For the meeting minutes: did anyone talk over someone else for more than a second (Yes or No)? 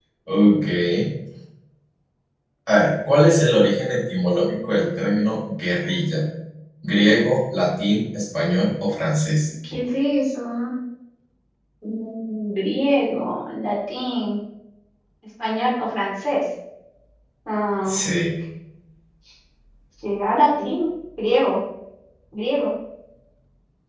No